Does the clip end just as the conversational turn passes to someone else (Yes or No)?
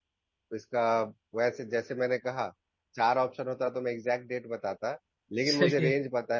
No